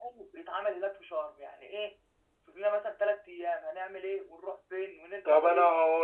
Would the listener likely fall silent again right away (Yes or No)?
No